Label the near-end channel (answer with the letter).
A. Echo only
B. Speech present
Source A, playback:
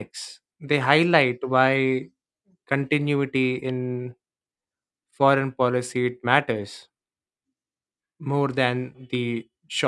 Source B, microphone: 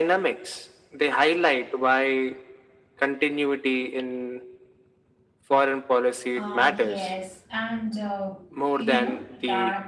B